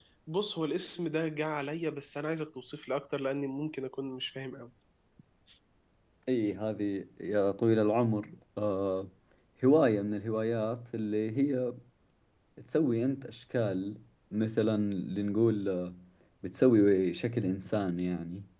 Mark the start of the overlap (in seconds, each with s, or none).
none